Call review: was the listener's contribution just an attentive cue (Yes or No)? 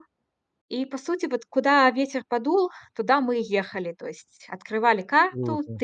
Yes